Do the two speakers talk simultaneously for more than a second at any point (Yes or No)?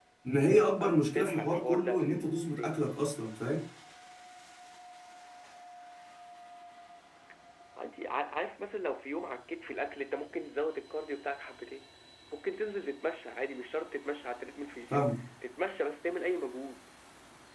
Yes